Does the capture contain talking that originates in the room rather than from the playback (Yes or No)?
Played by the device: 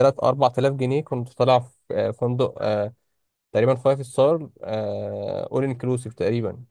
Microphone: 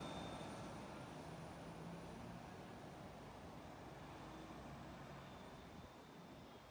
No